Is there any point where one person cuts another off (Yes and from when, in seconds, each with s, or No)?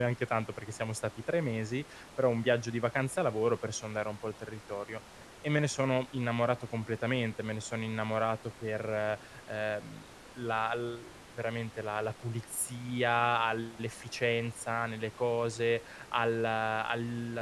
No